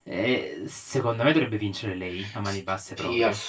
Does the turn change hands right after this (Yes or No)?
Yes